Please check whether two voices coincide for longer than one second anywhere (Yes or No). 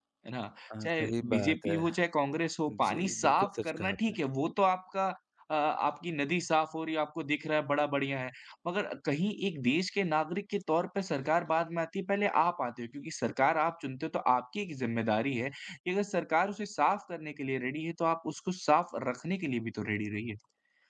Yes